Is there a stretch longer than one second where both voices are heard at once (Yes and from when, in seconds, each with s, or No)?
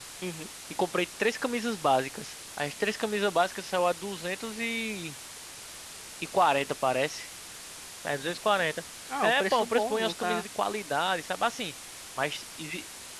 Yes, from 9.1 s